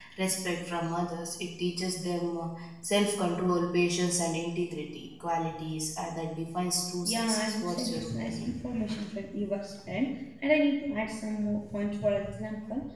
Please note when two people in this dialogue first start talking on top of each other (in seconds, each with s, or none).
7.0 s